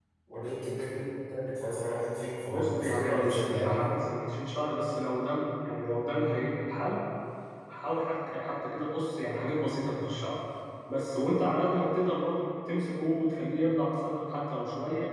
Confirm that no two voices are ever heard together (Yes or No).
No